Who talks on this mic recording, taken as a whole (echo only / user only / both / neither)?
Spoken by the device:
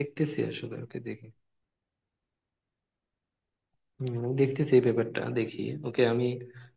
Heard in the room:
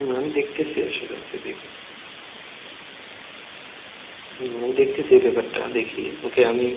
echo only